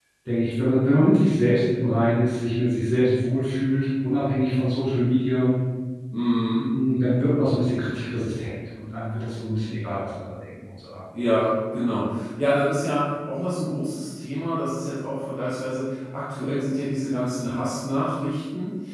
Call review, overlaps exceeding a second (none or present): none